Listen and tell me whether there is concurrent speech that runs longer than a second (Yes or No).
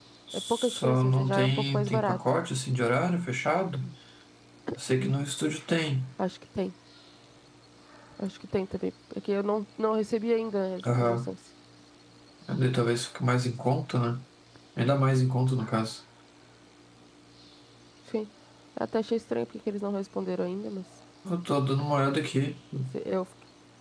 Yes